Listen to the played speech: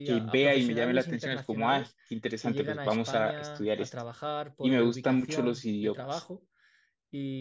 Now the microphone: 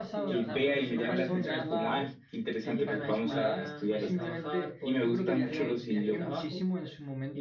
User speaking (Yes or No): Yes